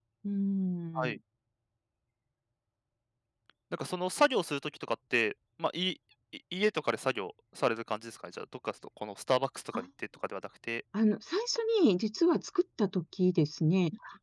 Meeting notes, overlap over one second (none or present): none